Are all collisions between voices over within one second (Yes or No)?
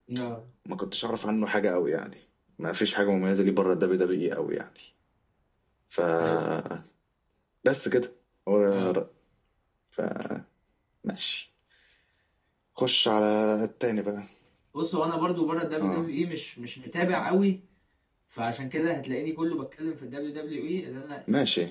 Yes